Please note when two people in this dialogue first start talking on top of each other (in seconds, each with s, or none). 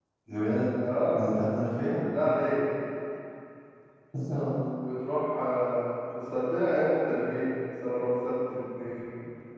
none